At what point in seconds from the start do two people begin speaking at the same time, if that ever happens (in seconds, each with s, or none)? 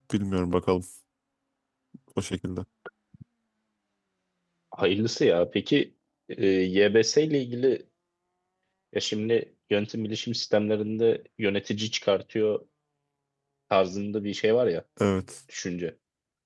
none